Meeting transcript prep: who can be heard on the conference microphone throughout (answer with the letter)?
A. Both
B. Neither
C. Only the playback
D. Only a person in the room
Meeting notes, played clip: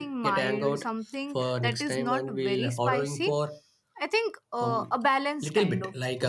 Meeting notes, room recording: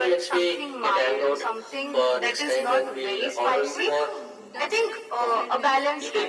A